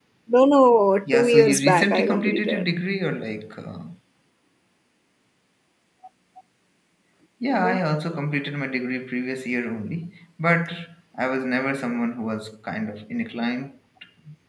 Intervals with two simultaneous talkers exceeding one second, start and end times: 1.0-2.6

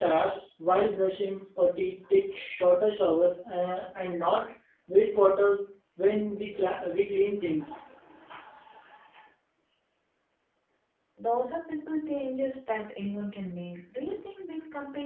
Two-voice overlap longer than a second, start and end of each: none

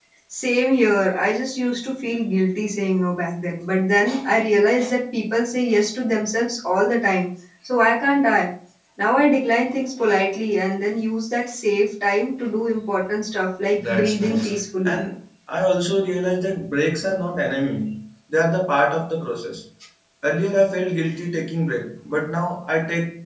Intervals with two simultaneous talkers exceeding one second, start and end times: 13.8-15.0

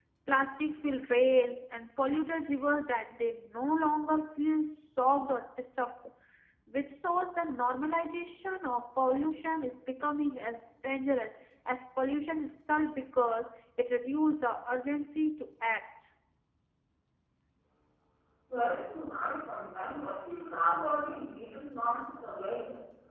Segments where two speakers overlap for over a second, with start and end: none

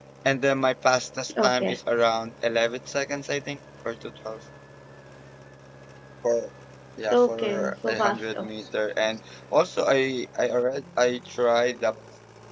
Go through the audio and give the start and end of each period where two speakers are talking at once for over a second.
7.1-8.5

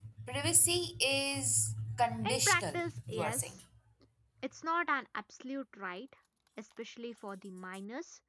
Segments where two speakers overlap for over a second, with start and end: 2.3-3.6

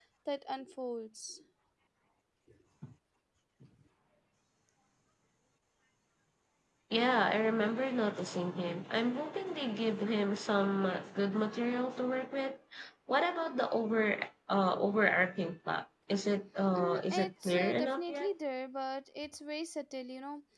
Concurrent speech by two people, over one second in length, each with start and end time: 16.8-18.3

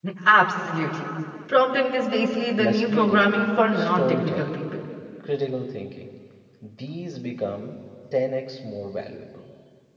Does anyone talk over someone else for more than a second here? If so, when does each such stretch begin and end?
2.6-4.6

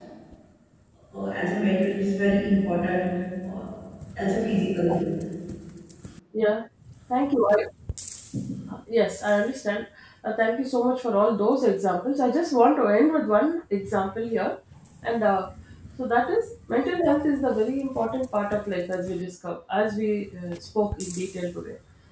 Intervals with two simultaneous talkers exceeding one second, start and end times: none

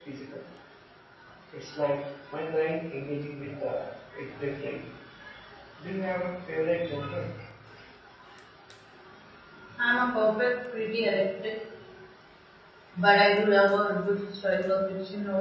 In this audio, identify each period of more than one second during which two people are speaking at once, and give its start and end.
none

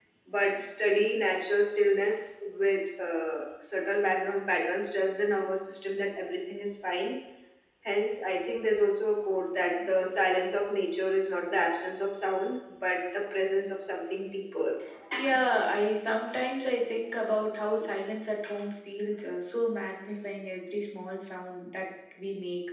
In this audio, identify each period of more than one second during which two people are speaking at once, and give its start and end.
none

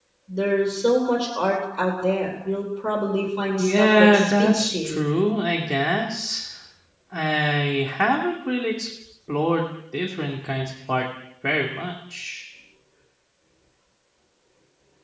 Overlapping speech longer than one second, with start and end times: 3.6-5.0

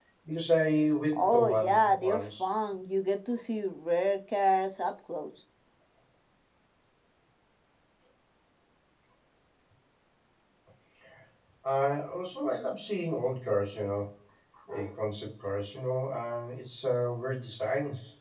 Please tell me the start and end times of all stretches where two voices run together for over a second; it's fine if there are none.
1.1-2.5

